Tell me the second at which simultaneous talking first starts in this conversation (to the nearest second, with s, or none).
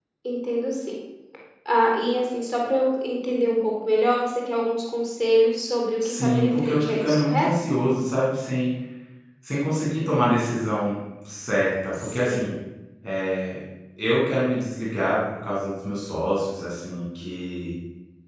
6 s